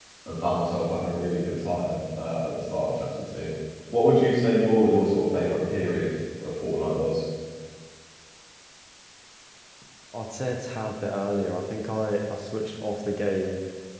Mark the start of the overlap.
none

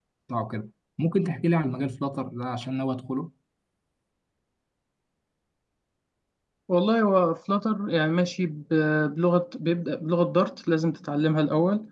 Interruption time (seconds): none

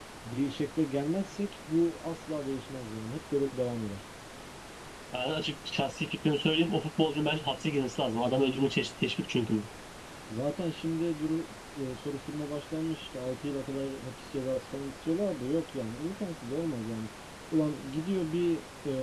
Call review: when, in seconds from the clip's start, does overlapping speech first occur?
none

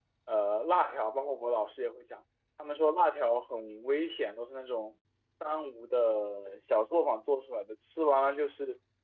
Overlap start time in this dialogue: none

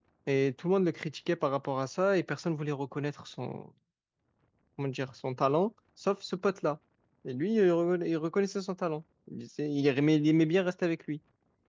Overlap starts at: none

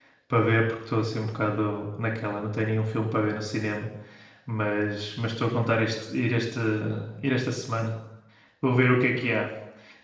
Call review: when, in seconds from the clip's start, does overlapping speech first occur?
none

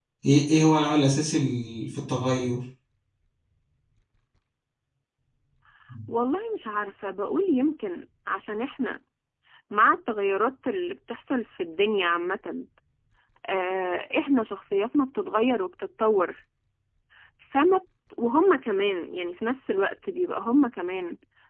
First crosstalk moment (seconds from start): none

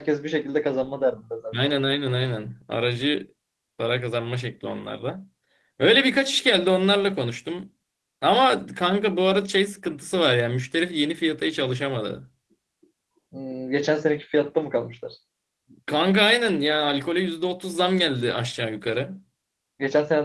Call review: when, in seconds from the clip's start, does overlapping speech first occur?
none

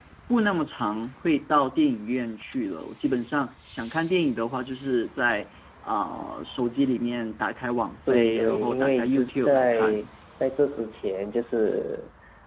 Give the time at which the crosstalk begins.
8.1 s

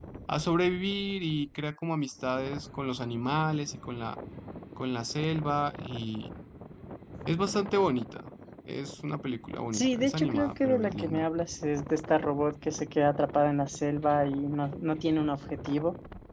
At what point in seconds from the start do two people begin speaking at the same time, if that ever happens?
9.7 s

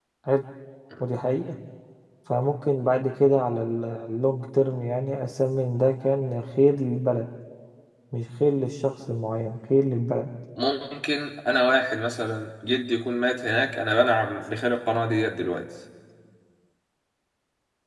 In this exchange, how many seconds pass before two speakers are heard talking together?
none

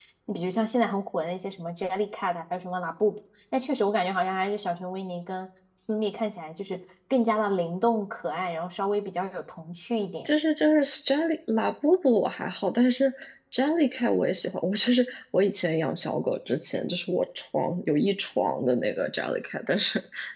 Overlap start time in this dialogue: none

